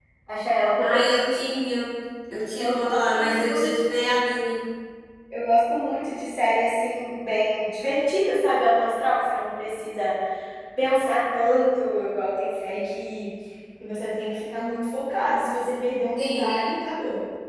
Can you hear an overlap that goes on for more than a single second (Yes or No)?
Yes